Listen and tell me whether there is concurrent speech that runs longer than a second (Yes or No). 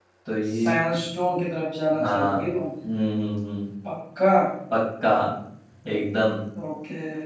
No